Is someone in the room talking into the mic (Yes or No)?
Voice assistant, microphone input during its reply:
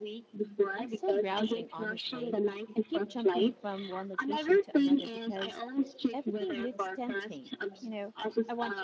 Yes